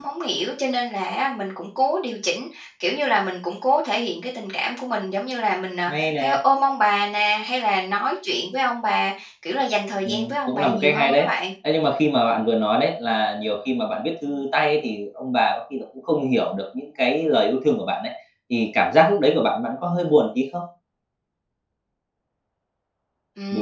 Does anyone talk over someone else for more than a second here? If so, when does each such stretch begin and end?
10.1-11.3

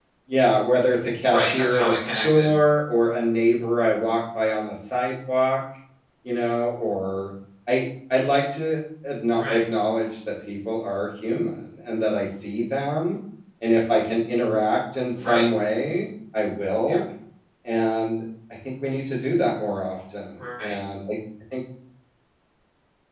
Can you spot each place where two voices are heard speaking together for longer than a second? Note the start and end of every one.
1.3-2.5

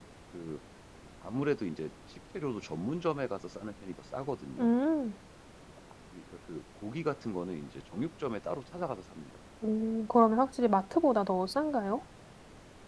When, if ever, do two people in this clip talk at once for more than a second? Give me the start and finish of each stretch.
none

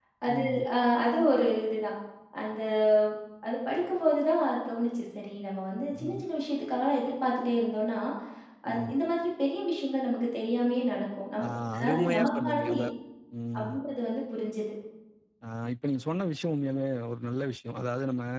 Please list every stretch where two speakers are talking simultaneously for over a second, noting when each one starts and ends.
11.4-12.9

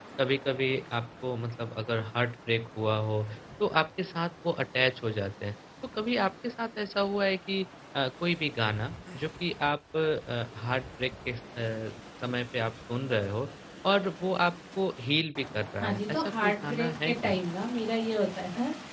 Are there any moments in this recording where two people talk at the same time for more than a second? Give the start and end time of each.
15.8-17.4

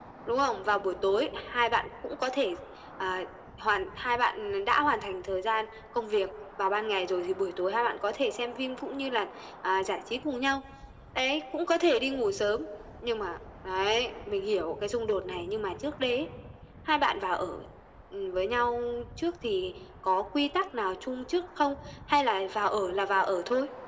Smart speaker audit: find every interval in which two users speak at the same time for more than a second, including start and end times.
none

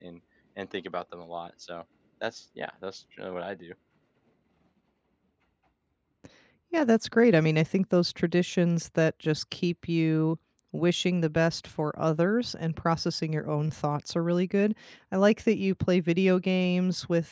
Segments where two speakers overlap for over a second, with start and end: none

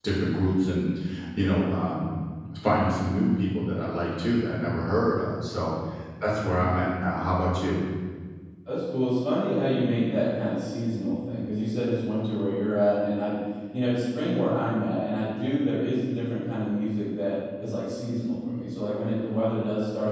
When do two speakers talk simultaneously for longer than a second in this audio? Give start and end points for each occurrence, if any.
none

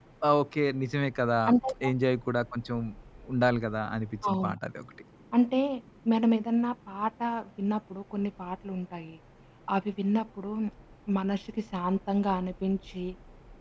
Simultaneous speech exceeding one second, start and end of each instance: none

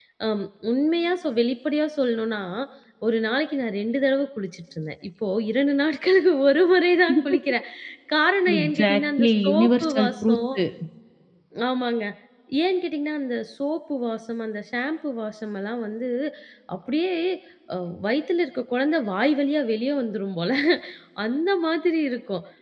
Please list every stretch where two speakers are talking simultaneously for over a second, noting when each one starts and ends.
8.6-10.4

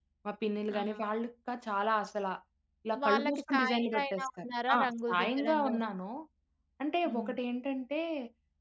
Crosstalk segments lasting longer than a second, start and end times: 3.0-5.9

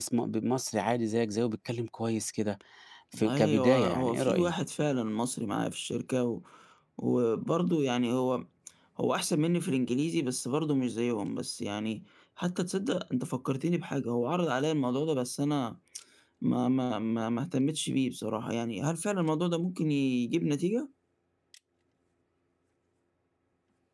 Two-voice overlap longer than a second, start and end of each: 3.1-4.5

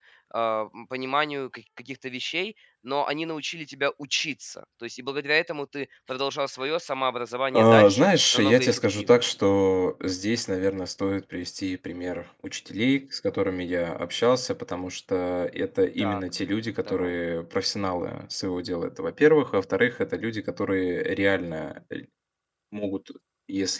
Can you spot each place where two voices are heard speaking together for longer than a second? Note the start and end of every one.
7.5-9.2

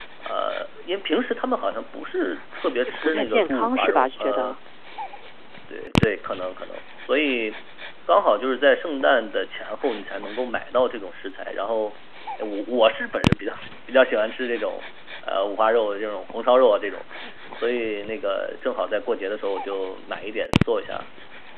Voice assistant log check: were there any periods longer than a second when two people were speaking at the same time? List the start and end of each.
3.0-4.6

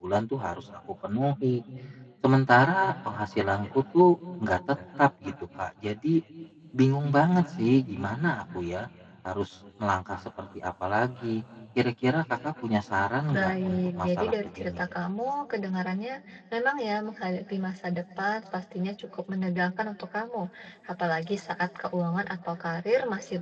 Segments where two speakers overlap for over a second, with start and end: 13.3-14.8

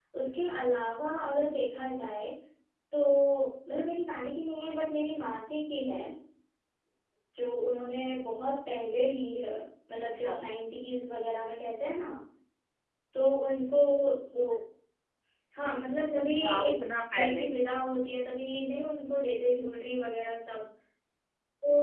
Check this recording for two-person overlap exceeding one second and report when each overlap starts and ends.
16.2-17.5

